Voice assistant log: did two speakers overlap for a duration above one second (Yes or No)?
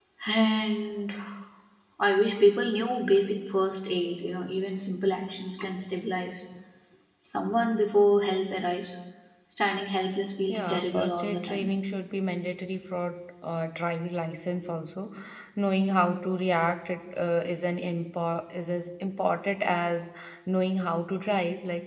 Yes